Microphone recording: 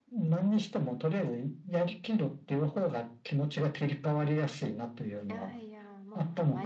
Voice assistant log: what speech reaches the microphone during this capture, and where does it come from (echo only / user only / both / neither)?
both